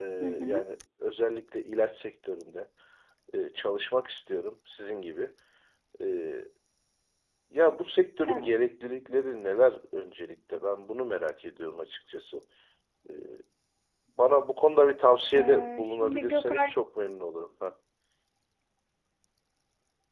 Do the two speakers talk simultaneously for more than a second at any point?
Yes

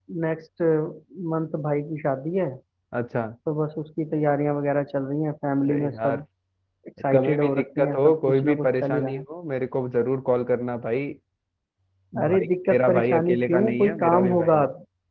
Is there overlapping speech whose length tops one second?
Yes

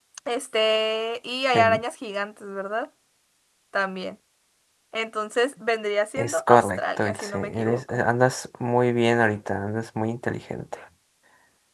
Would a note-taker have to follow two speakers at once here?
Yes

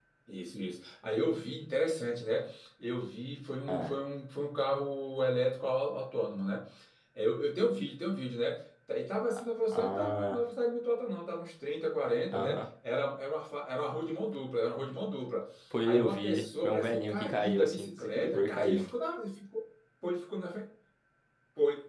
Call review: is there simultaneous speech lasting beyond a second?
Yes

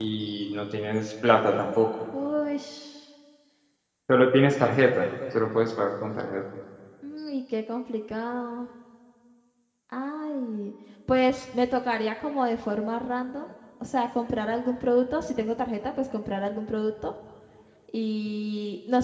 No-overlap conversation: Yes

